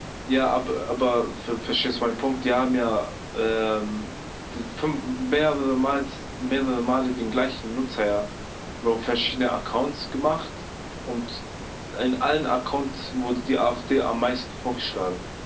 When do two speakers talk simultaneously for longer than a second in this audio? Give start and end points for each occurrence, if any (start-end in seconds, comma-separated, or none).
none